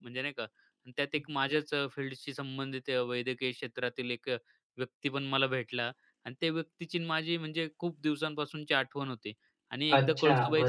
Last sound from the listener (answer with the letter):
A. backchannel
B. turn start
A